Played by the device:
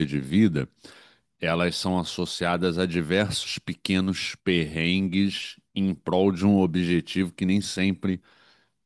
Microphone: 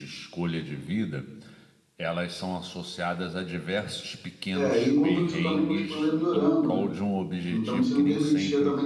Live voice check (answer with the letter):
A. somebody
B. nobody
A